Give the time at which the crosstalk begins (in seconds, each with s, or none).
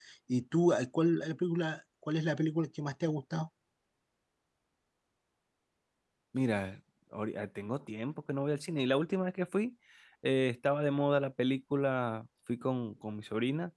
none